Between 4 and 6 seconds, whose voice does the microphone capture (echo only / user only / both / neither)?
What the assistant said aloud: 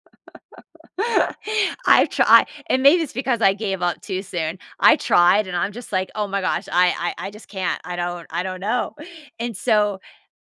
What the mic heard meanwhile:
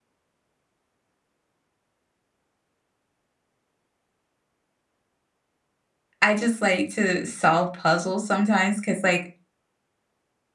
neither